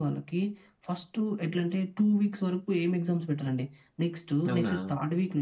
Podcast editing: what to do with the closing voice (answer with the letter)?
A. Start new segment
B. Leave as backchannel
B